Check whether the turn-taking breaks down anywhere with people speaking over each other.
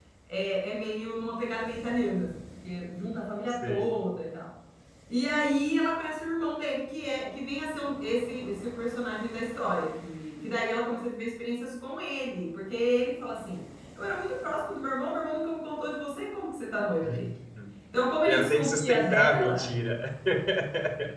Yes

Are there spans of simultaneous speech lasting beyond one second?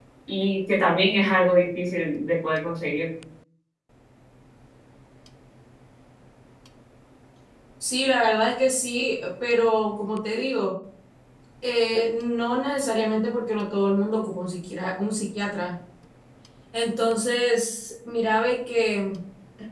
No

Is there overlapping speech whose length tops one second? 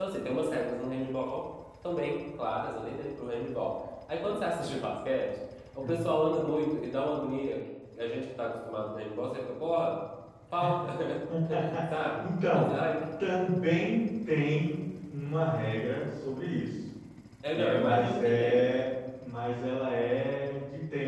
Yes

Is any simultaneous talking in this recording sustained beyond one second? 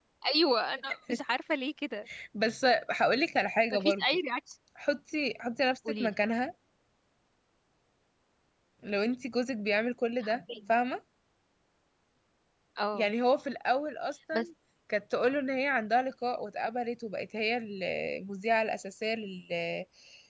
No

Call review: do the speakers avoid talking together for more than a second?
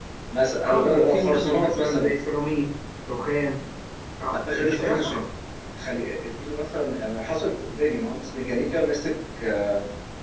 No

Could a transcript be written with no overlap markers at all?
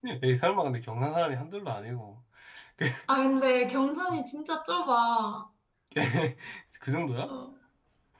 Yes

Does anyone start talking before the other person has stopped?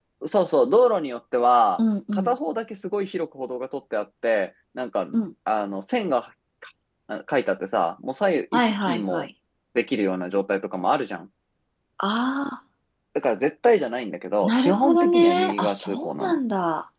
Yes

